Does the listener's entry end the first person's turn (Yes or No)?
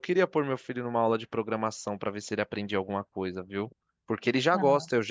No